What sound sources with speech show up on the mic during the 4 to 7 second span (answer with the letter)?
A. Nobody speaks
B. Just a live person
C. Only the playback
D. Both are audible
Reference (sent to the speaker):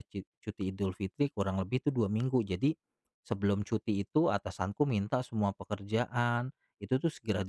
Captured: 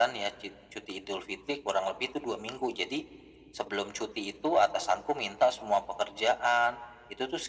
C